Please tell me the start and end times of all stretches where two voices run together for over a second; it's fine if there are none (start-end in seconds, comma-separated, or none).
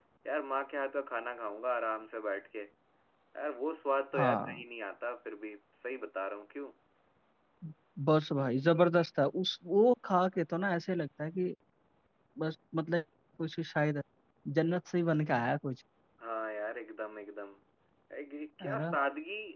none